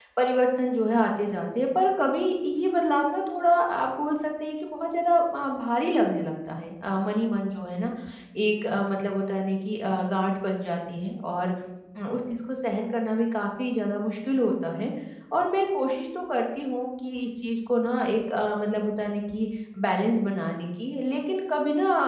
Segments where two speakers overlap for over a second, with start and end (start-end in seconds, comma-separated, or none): none